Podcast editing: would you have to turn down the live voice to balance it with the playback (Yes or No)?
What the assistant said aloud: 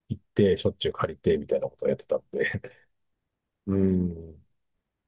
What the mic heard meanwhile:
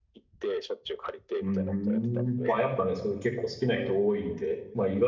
Yes